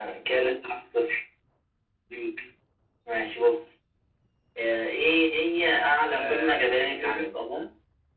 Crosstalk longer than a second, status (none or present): present